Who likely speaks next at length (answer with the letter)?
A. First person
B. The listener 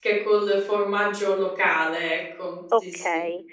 B